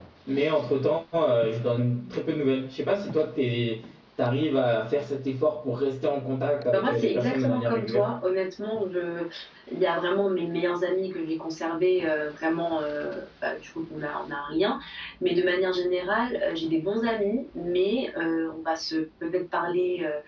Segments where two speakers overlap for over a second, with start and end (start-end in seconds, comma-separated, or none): 6.7-8.1